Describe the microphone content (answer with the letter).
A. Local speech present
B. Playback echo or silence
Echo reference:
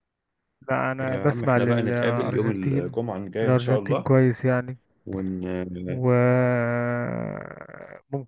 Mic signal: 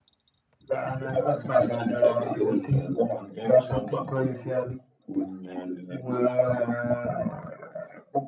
B